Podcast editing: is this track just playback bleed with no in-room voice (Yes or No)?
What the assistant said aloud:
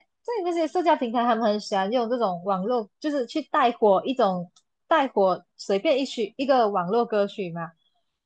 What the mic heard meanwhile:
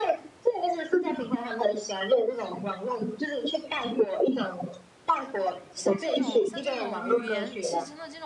No